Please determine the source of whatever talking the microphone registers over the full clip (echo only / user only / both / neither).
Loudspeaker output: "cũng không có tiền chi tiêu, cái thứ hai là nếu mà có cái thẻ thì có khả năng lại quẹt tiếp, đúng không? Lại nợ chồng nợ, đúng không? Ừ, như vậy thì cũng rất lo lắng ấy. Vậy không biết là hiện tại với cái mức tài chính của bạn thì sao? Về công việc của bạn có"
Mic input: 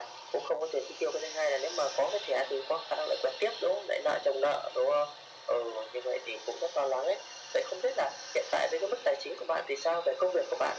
echo only